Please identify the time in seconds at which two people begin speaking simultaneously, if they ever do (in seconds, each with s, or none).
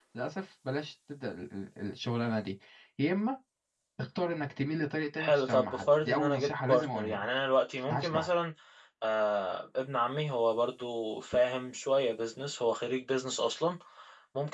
5.2 s